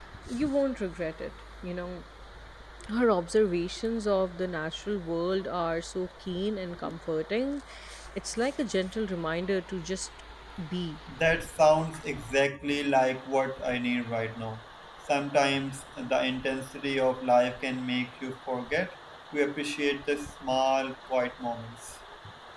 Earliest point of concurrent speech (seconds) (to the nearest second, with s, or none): none